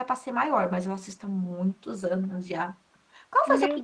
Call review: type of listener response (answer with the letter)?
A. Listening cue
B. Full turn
B